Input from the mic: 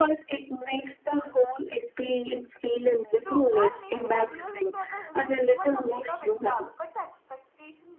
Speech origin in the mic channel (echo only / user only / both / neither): both